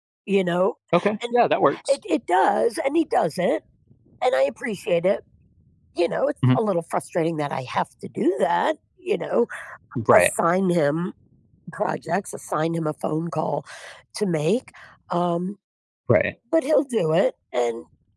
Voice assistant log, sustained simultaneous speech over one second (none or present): none